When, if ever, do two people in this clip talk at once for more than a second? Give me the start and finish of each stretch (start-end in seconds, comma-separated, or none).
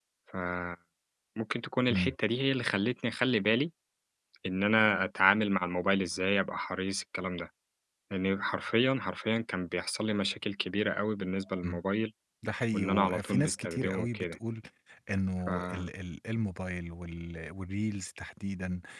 12.7-14.4